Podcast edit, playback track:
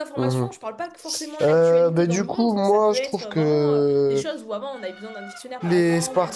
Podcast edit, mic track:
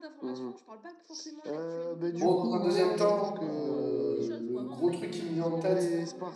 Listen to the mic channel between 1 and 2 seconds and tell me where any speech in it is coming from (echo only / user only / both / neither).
echo only